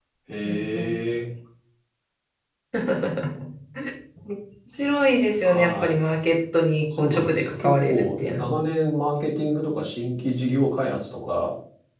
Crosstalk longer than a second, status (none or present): present